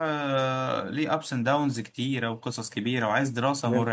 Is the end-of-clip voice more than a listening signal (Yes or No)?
No